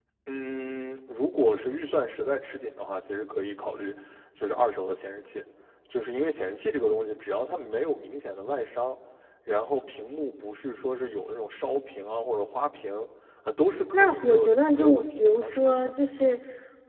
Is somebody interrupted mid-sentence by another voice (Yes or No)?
Yes